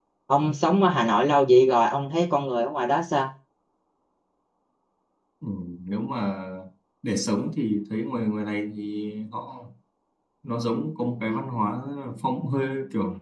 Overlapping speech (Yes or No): No